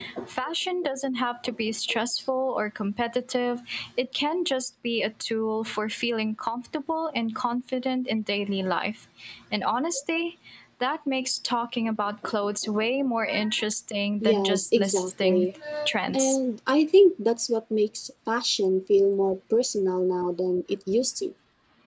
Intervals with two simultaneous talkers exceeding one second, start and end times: 14.2-15.5

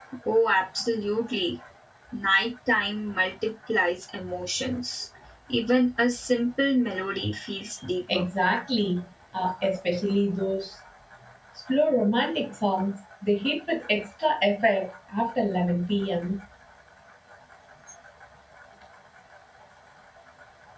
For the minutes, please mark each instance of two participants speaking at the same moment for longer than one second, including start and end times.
none

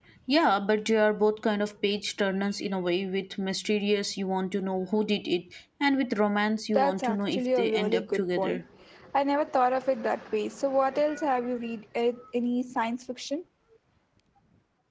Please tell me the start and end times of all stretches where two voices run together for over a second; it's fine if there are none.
6.7-8.6

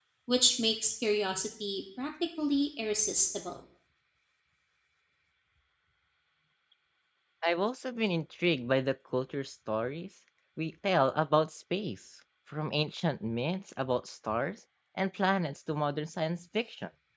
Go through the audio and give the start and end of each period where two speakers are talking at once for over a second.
none

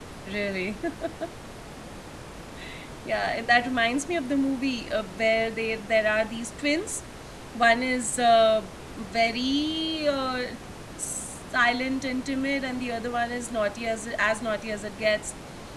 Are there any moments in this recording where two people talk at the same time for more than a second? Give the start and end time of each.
none

